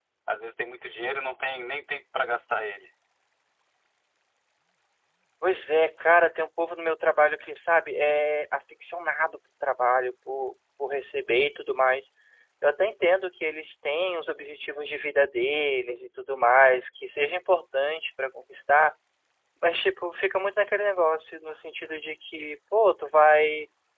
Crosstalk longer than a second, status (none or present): none